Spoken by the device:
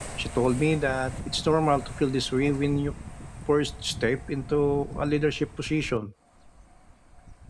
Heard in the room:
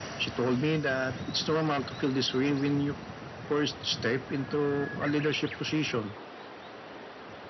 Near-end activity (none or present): none